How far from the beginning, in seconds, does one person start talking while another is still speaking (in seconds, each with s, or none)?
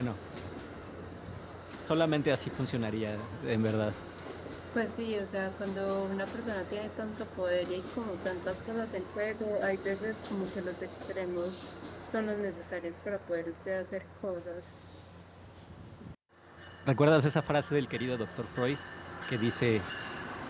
none